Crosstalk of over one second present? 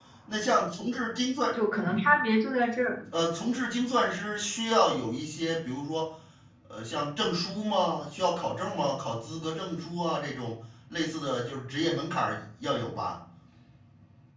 No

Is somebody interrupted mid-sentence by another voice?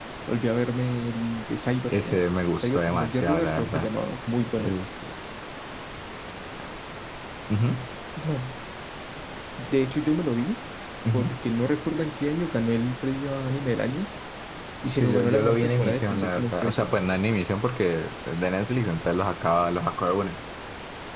Yes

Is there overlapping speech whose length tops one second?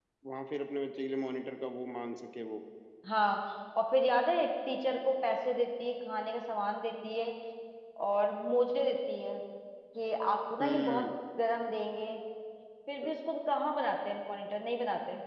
No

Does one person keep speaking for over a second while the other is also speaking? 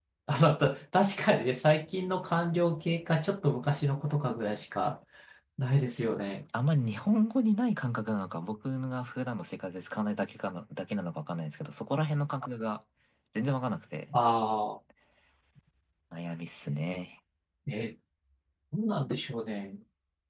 No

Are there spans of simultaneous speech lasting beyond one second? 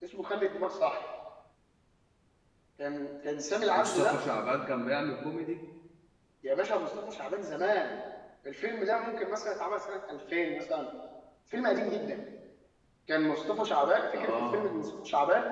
No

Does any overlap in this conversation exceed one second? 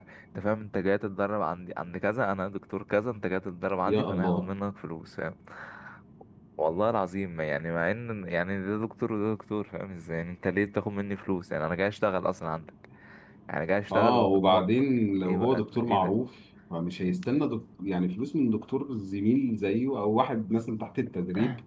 Yes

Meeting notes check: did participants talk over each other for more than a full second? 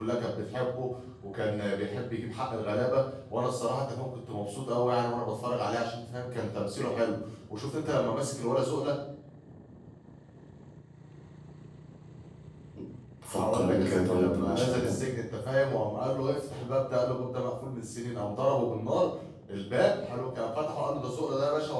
Yes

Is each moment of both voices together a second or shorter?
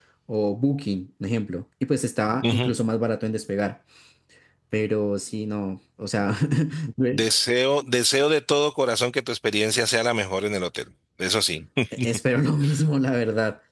Yes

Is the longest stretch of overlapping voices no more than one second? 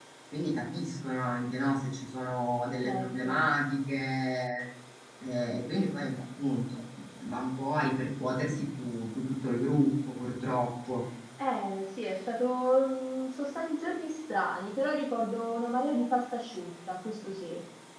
Yes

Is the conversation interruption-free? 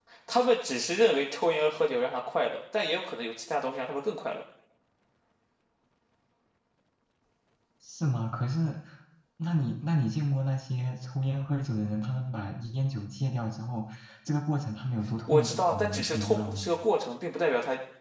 No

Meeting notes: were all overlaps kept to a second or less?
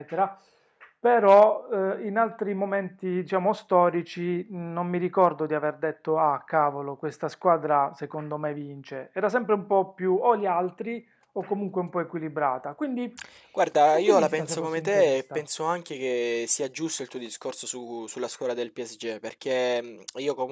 No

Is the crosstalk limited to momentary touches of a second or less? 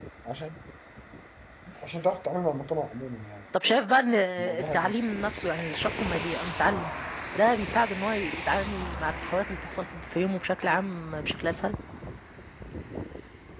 Yes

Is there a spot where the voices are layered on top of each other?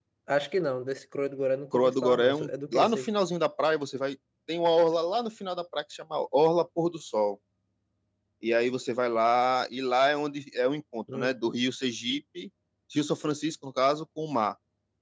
Yes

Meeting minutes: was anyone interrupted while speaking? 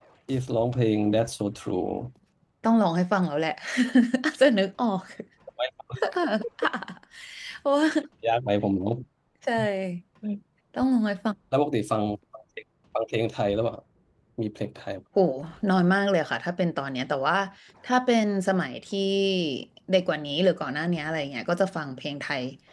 No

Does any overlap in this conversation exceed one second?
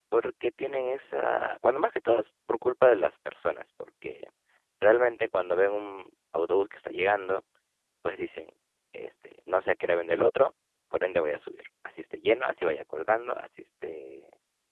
No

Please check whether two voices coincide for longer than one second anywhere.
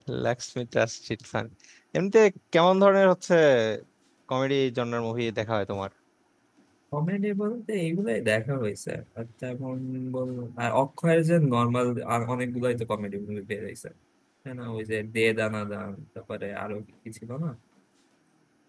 No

